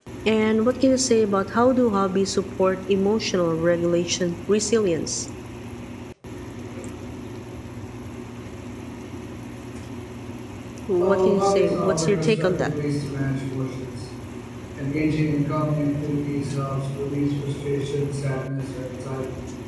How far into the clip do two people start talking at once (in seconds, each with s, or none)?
11.0 s